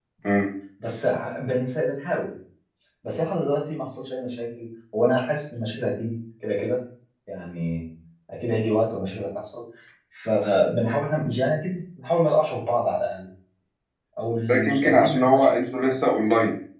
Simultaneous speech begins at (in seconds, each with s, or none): 14.7 s